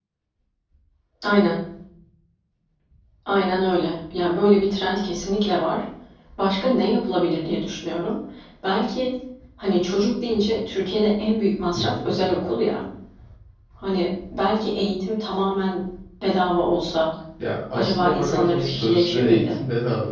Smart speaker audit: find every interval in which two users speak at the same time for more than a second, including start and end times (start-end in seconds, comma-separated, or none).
17.7-19.6